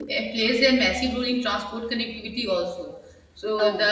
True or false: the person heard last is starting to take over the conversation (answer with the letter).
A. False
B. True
A